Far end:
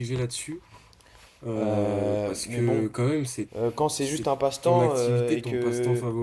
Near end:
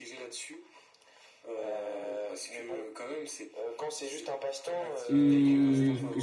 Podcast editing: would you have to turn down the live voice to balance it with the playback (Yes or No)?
Yes